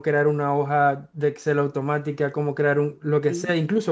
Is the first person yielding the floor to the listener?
No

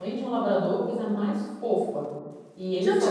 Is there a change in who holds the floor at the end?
Yes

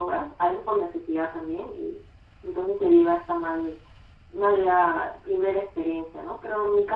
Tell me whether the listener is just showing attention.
Yes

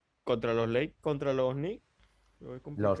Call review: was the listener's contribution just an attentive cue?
No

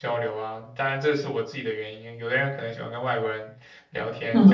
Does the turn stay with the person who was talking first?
No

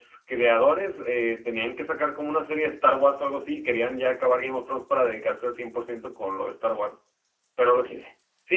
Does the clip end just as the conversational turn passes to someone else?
No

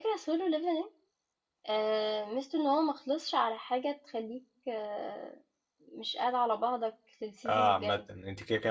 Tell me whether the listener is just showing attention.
No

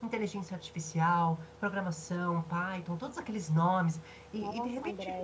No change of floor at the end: No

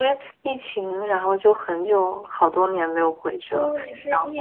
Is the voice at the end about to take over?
Yes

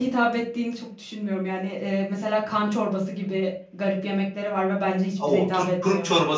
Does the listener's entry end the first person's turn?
Yes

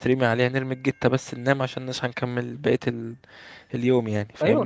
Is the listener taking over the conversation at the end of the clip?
Yes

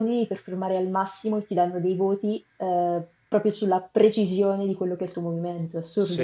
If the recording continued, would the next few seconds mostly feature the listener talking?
Yes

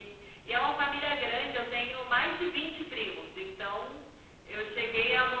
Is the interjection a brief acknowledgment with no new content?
Yes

